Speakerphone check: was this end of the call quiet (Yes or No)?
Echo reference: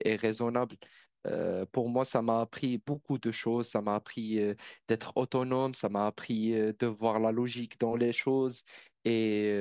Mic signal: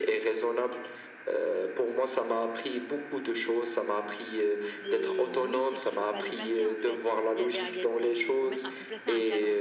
No